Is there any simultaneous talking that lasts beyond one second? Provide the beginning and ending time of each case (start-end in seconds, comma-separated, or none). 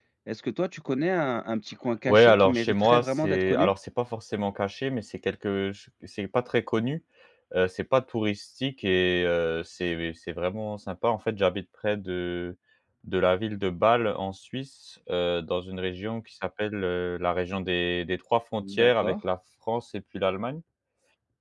2.1-3.7